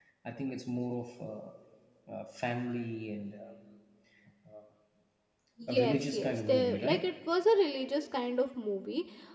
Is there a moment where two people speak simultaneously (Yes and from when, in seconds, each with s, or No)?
Yes, from 5.7 s